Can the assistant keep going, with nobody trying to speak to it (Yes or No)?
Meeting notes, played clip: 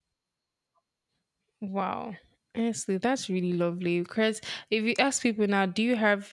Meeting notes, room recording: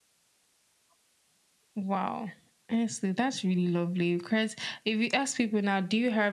Yes